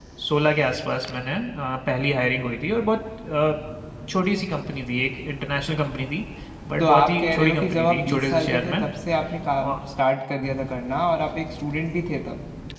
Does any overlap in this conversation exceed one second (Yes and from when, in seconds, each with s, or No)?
Yes, from 6.8 s